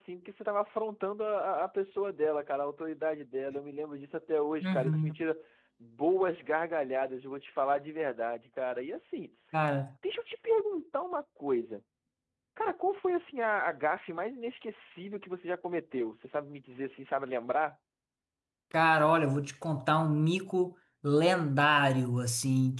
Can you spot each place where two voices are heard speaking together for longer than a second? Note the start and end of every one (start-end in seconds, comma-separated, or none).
none